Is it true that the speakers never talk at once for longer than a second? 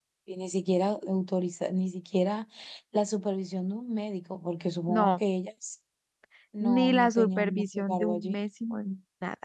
No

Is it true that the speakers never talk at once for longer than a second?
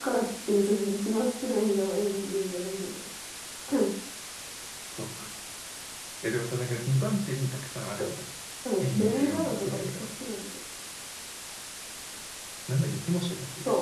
No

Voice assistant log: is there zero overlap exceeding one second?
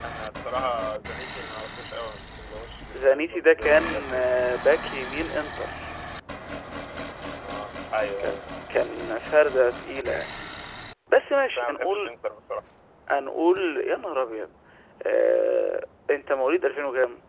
No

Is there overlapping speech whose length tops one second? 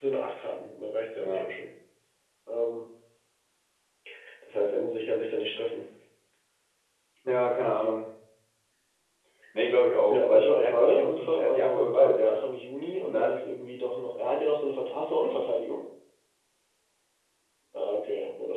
Yes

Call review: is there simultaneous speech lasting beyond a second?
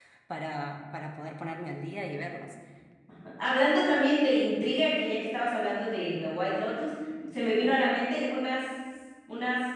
No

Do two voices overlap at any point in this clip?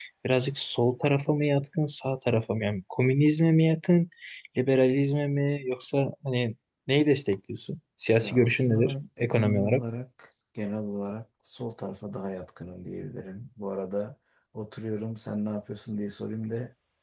Yes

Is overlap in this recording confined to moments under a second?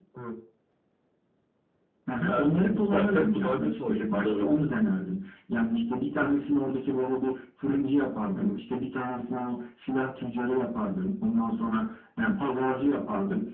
No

